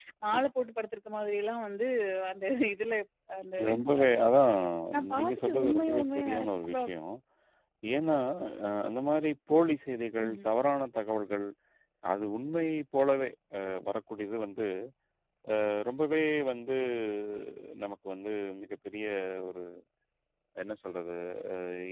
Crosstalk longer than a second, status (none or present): present